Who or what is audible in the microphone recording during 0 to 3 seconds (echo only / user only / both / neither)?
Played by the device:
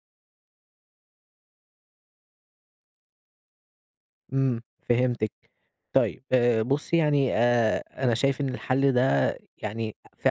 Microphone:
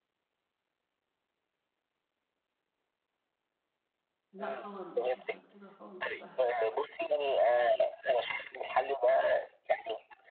neither